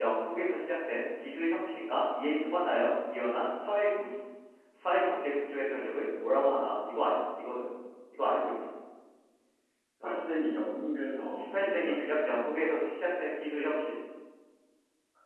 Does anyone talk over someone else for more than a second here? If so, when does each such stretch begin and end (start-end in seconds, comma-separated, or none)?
11.4-12.8